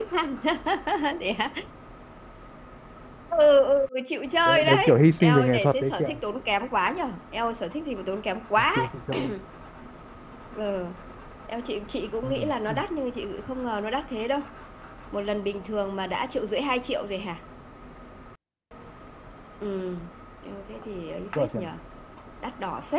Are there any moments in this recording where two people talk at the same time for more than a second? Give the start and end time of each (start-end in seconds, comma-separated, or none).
4.5-6.1